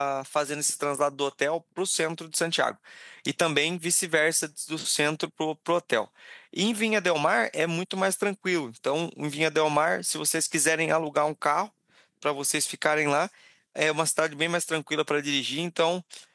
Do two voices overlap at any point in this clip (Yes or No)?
No